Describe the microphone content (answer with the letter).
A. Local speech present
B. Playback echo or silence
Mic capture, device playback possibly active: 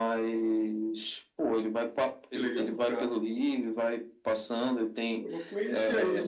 B